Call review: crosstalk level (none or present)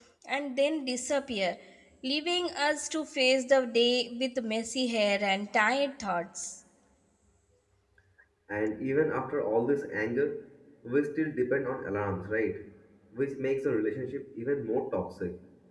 none